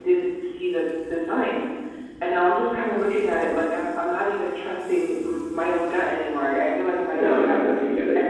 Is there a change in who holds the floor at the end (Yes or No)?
Yes